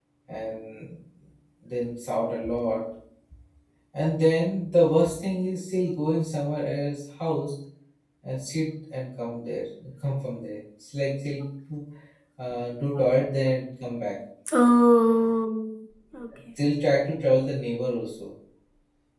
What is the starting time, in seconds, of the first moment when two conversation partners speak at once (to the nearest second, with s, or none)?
none